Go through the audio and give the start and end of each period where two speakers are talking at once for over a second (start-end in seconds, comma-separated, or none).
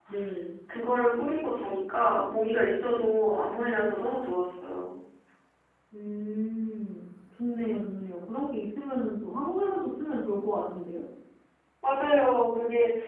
none